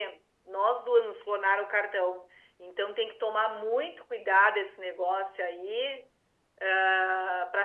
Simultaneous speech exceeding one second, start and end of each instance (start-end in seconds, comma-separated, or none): none